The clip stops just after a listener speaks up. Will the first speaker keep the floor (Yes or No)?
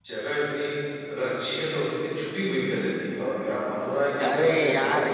No